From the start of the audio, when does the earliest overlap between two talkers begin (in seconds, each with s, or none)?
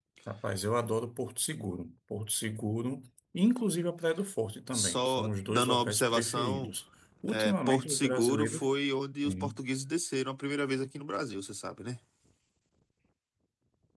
4.7 s